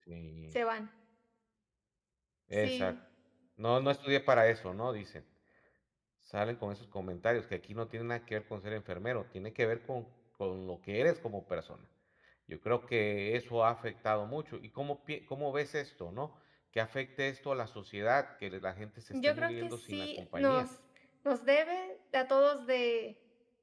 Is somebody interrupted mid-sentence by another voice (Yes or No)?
Yes